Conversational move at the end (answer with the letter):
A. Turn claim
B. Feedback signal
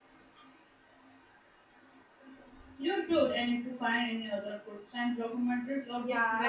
A